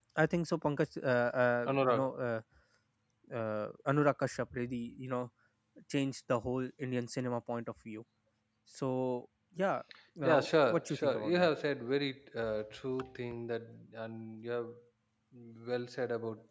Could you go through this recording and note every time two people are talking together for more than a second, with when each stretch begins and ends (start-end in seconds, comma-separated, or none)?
10.2-11.5